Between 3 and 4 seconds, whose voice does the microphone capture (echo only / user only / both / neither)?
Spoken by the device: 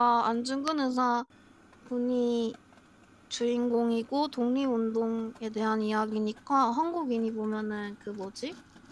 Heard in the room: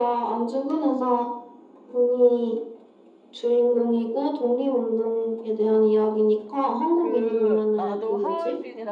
echo only